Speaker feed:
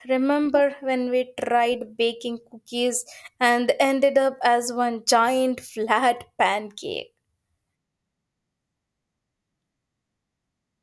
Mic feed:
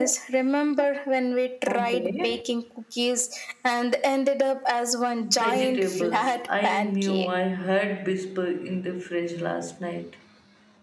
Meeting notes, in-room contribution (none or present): present